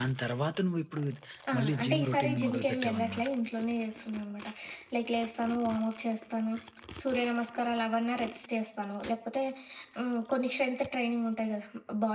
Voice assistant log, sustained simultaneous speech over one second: present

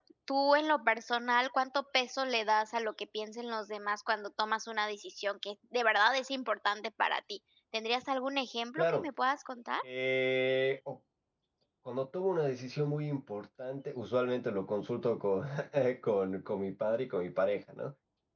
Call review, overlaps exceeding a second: none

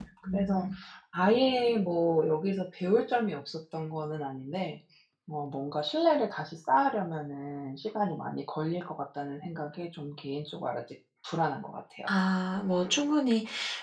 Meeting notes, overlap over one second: none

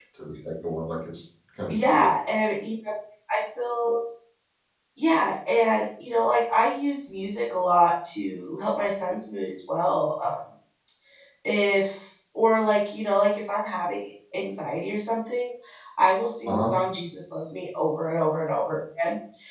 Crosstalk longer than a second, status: none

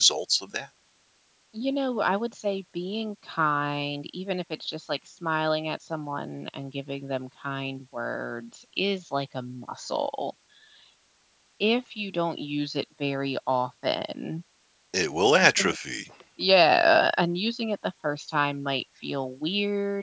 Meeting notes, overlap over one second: none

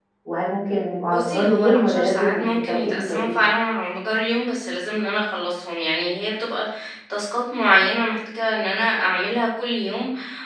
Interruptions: present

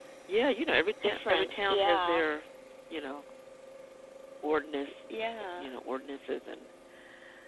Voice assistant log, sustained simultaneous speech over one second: present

